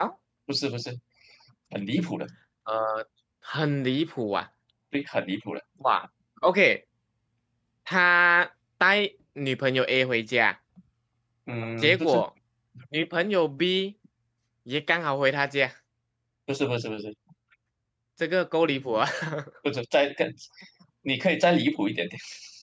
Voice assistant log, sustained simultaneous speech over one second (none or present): none